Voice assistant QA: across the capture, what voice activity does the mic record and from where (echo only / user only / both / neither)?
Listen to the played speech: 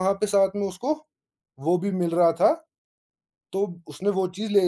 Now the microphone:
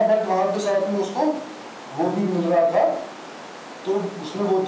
echo only